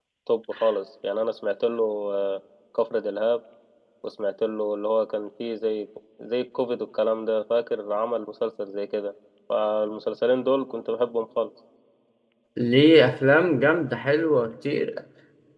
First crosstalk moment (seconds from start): none

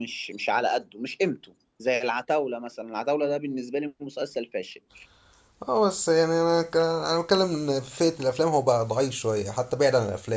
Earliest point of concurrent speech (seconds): none

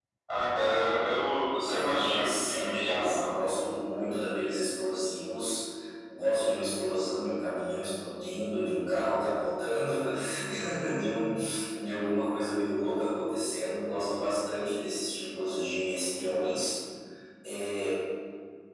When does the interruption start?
2 s

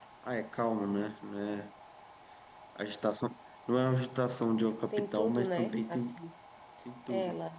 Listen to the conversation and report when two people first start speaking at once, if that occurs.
5 s

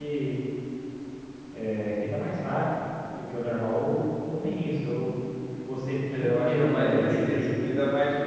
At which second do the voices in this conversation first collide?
6 s

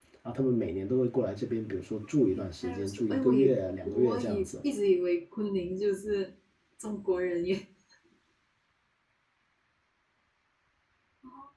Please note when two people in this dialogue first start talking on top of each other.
2 s

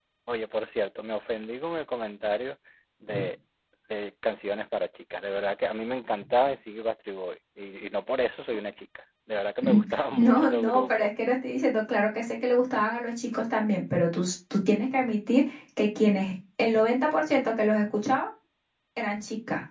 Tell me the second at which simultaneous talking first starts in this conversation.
10 s

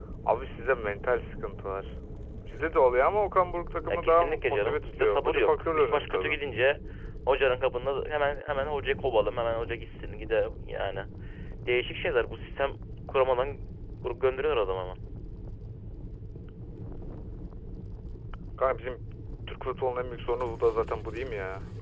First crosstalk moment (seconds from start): 4 s

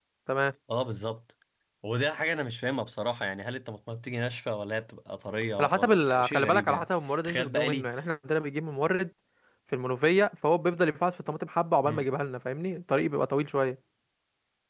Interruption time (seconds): 6 s

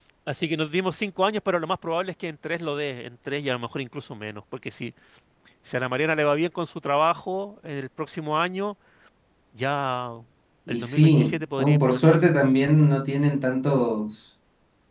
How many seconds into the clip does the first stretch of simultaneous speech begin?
11 s

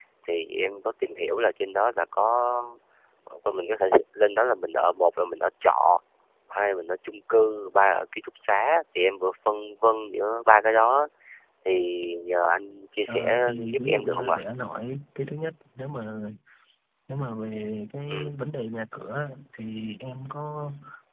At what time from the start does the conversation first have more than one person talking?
13 s

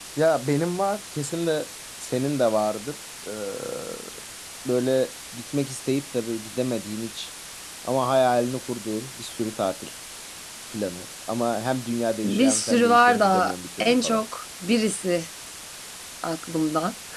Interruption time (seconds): 12 s

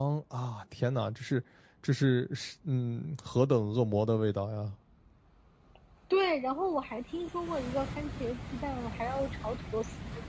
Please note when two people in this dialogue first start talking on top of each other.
none

